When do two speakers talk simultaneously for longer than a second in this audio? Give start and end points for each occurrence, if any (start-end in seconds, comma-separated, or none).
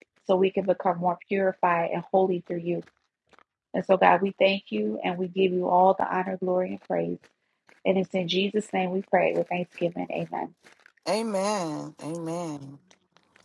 none